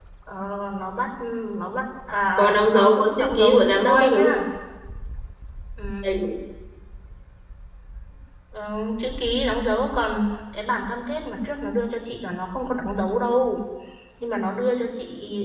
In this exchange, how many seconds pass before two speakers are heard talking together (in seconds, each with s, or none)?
2.4 s